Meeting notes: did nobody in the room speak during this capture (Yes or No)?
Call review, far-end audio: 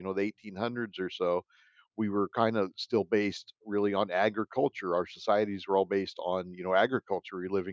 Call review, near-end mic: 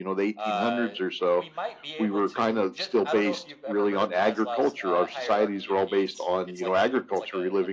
No